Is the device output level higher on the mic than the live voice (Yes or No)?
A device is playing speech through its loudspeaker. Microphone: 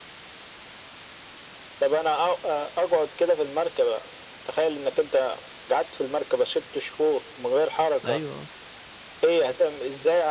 Yes